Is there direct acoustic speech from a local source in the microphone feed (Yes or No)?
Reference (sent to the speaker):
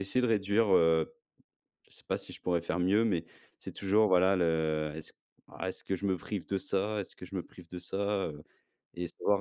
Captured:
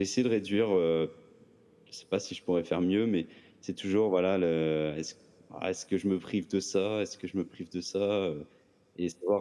No